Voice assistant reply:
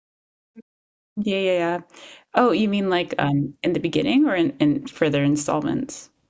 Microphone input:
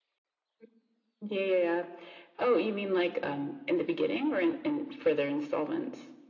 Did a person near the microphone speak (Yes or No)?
No